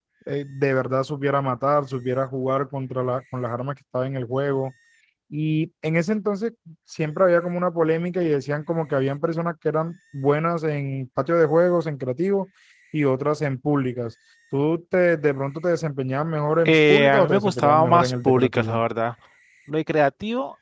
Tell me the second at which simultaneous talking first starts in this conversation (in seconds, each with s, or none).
16.6 s